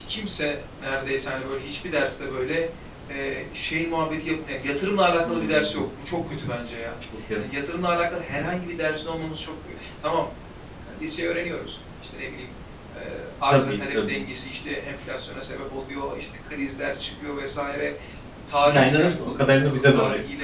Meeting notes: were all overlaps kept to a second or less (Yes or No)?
No